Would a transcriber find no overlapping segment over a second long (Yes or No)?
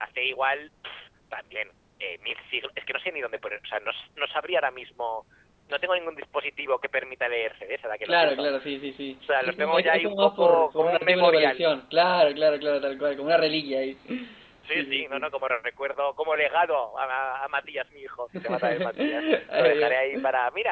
No